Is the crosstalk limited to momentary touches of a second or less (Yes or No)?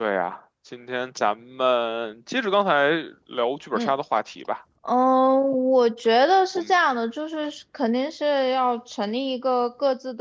Yes